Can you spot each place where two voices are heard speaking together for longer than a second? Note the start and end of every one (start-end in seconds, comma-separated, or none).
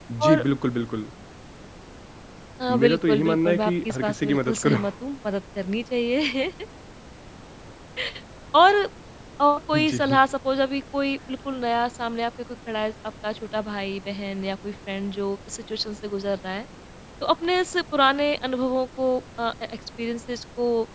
2.7-4.8